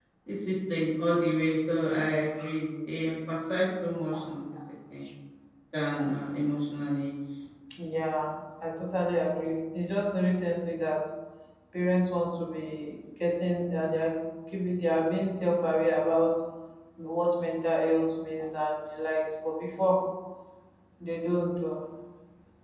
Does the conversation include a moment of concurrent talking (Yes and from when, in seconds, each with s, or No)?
No